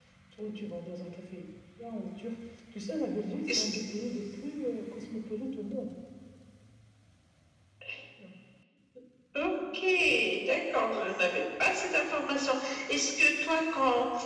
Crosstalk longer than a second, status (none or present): none